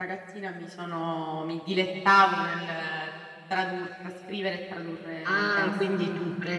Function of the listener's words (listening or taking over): taking over